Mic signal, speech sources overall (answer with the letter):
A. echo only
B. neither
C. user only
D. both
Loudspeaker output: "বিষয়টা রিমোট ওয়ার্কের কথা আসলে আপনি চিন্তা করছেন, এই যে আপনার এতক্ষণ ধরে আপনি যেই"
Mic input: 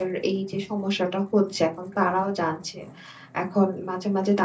C